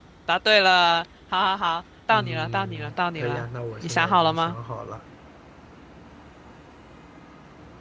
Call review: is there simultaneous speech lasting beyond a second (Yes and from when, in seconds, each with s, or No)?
Yes, from 2.1 s